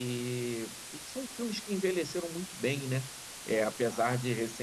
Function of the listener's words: listening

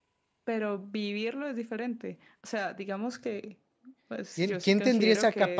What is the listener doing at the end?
taking over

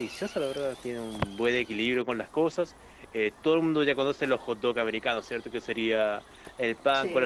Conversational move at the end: listening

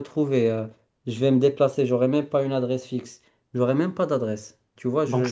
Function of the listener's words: listening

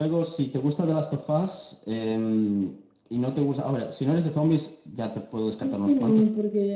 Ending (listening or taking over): taking over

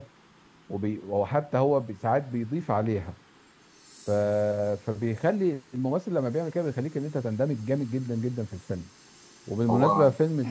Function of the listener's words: listening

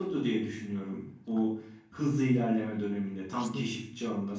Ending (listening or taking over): listening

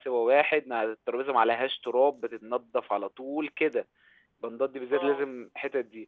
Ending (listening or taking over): listening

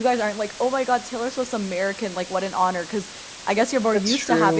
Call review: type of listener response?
listening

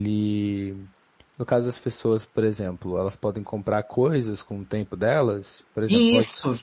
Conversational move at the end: taking over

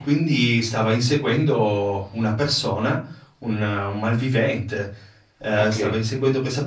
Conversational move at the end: listening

